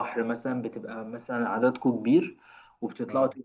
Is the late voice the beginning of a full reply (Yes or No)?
No